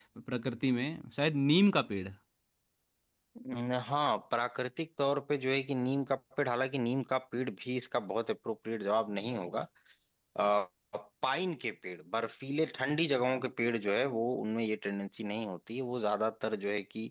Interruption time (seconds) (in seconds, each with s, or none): none